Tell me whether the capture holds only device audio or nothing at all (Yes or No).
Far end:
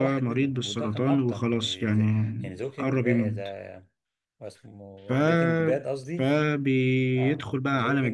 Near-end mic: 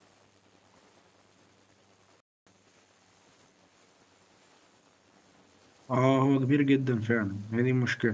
No